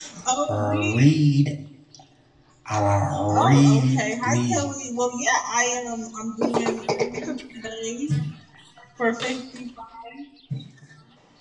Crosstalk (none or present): present